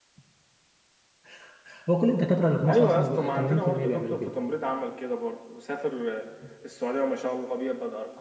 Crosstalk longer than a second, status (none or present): present